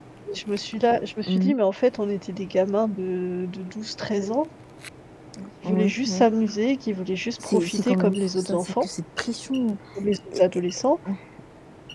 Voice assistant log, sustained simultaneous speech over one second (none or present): present